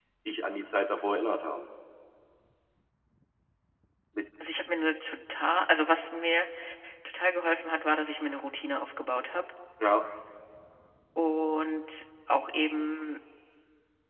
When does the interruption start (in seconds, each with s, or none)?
none